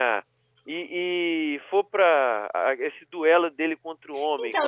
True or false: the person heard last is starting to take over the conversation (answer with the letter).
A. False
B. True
B